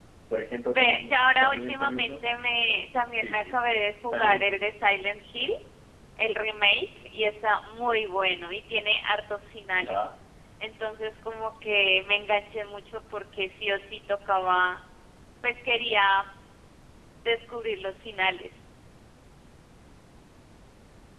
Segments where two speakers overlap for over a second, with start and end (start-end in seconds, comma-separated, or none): 0.7-2.3